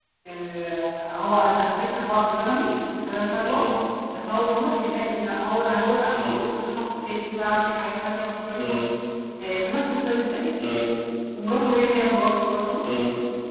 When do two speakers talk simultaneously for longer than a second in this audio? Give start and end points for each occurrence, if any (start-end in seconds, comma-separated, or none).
none